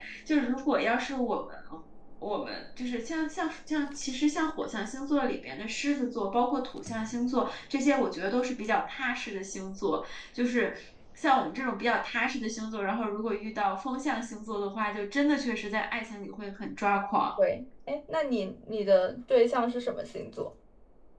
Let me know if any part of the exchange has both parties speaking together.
No

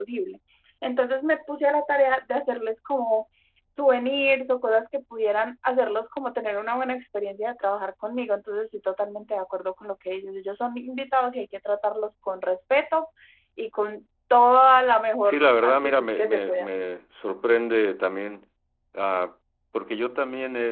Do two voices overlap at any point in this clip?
Yes, from 15.2 s

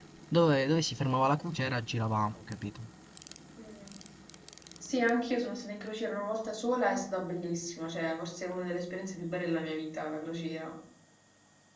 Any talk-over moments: No

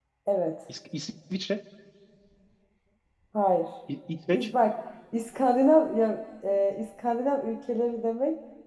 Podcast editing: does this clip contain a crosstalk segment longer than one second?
No

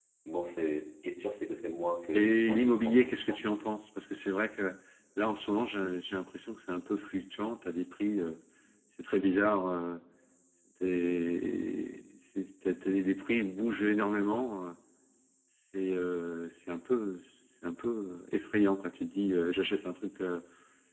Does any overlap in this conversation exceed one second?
Yes, from 2.2 s

